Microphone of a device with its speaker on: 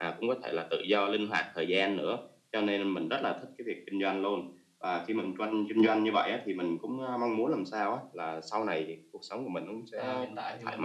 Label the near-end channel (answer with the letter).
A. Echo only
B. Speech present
B